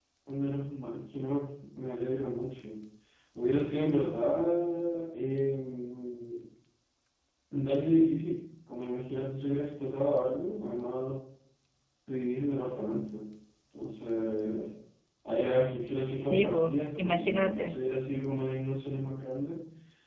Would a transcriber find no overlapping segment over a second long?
No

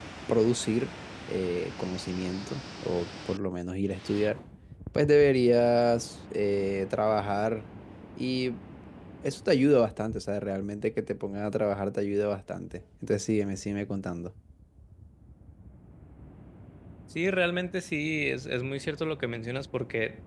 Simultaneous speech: No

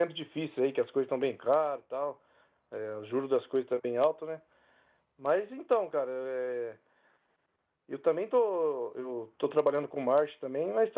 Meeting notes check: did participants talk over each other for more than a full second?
No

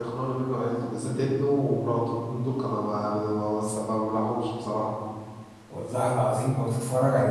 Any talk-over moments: No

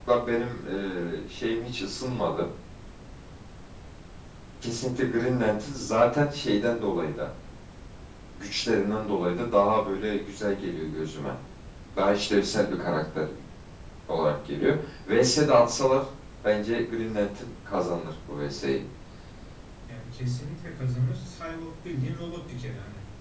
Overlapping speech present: No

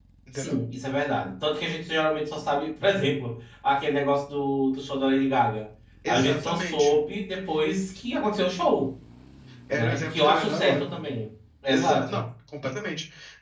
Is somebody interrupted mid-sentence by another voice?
Yes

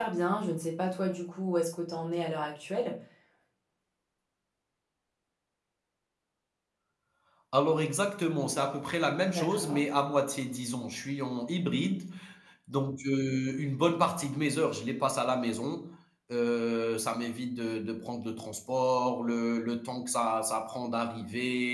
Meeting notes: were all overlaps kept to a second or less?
Yes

